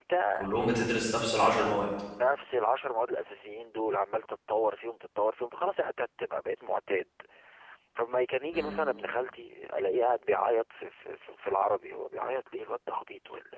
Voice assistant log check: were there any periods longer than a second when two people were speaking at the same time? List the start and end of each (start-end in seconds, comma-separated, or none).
none